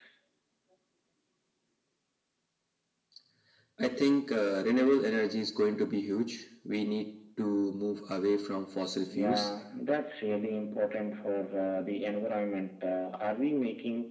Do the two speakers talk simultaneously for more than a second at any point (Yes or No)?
No